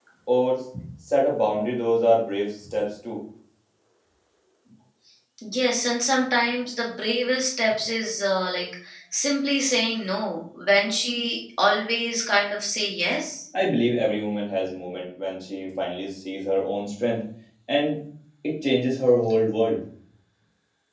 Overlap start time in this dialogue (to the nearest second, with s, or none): none